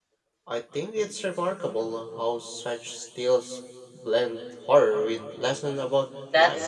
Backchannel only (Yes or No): No